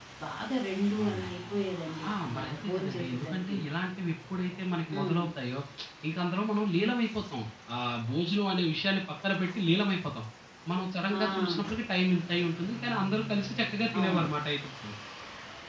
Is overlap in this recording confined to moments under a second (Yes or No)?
No